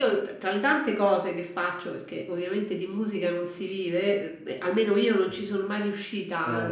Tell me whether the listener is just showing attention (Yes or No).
Yes